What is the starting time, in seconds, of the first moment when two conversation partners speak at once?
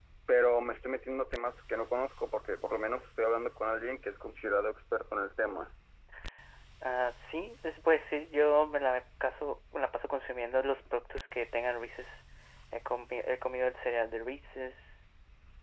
none

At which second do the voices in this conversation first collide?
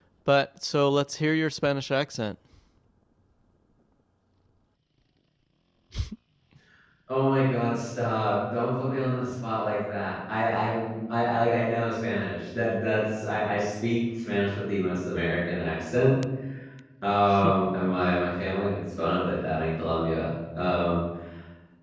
none

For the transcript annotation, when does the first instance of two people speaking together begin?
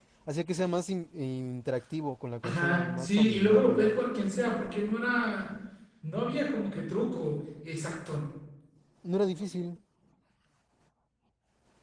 2.4 s

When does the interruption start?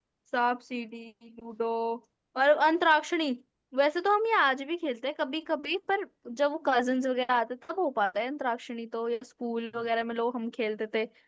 none

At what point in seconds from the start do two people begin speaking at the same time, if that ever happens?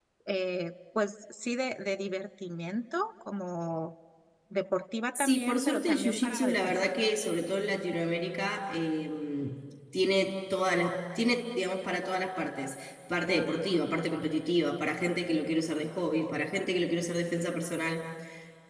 5.2 s

